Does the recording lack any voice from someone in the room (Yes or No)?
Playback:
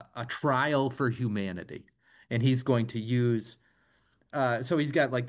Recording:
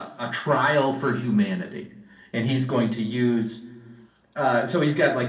Yes